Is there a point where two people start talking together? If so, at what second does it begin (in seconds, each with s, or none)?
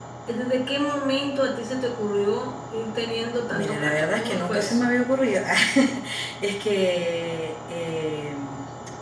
3.5 s